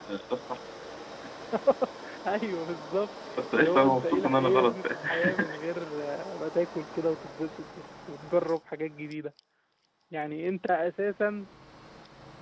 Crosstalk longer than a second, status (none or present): present